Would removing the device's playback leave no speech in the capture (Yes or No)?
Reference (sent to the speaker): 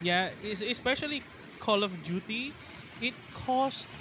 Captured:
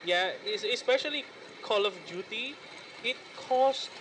Yes